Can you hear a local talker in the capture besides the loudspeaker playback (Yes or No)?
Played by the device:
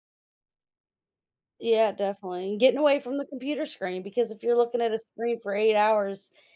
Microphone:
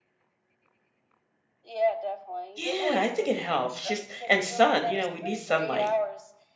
Yes